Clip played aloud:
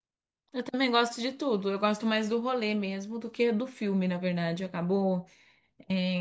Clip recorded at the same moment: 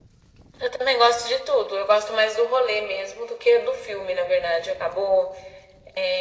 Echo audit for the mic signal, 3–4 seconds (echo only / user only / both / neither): echo only